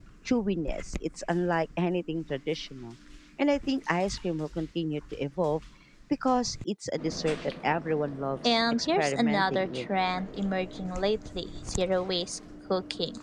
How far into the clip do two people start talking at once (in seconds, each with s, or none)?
8.4 s